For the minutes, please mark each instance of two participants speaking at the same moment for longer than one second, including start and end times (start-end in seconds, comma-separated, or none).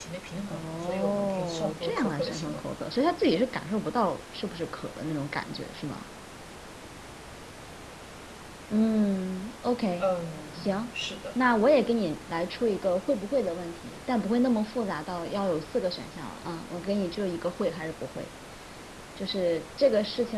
0.5-2.6